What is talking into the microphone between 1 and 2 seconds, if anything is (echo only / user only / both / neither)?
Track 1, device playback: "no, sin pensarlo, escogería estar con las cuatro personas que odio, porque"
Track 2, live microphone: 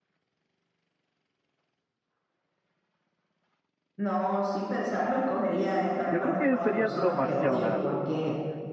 neither